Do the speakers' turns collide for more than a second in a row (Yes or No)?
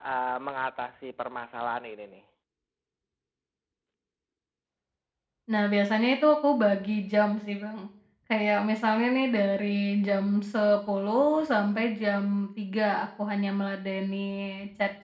No